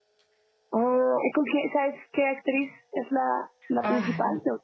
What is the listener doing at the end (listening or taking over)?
taking over